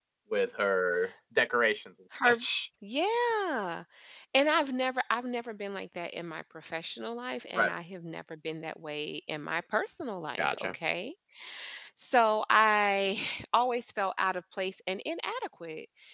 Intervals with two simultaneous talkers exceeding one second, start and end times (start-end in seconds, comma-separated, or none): none